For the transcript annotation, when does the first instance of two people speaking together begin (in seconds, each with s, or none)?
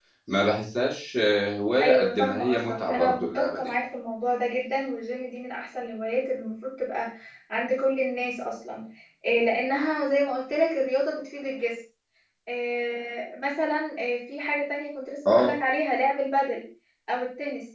1.8 s